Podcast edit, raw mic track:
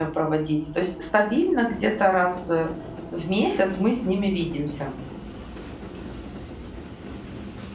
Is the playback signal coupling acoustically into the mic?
No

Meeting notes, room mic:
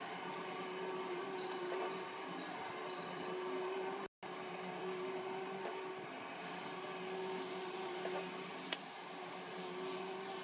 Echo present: No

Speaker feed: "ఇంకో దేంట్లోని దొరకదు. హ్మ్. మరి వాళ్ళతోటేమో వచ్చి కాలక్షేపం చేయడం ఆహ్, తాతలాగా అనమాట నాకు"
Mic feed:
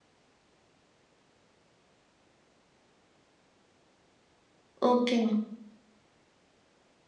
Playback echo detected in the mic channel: No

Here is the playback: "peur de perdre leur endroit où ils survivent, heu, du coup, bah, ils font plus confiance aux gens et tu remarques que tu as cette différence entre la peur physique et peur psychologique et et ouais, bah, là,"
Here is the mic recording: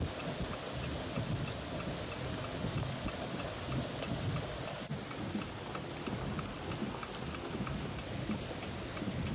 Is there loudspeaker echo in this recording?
No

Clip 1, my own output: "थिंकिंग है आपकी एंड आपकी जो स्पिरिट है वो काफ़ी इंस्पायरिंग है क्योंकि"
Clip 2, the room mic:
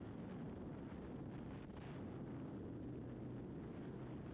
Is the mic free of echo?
Yes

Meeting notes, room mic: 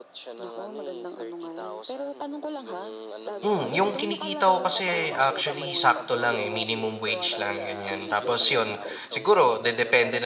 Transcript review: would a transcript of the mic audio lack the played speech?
No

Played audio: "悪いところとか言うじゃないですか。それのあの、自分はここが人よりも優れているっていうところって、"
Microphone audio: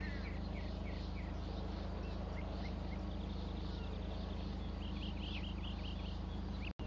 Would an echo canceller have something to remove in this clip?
No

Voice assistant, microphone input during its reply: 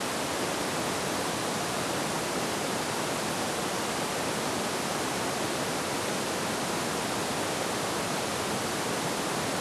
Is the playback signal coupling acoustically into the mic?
No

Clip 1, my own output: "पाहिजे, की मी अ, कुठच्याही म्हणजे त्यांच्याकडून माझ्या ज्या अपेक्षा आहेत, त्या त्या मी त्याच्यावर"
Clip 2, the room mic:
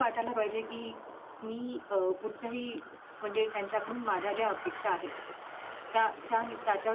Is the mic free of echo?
No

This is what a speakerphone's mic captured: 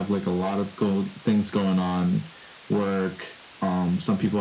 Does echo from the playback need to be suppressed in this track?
Yes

